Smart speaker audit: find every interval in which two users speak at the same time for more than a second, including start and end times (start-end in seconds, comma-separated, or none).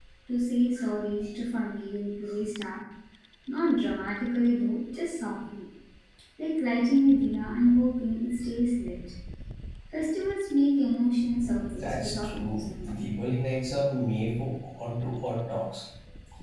11.8-13.0